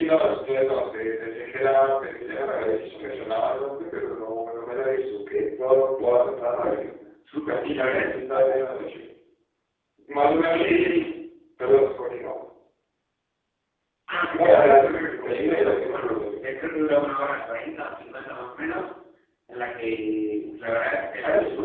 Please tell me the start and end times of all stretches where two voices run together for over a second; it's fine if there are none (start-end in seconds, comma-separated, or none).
7.4-8.6, 14.3-16.4